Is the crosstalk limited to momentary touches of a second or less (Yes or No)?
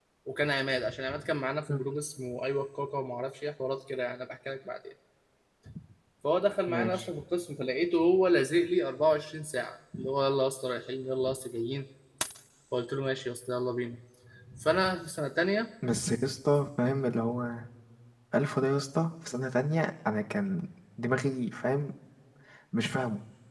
Yes